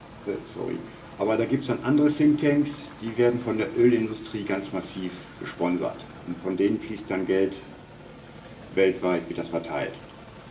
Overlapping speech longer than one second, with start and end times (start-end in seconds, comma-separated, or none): none